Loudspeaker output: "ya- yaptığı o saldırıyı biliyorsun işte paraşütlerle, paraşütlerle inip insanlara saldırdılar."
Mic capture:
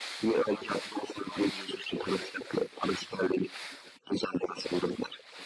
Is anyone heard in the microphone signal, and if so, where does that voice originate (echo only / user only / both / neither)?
echo only